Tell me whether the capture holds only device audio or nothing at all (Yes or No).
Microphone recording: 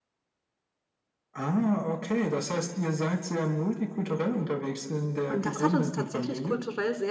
No